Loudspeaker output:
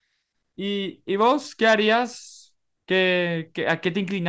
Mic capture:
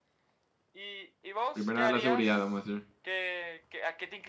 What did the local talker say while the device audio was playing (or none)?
Primera la seguridad, vamos a decir.